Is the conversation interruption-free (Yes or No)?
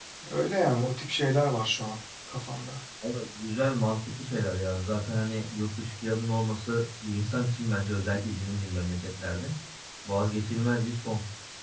Yes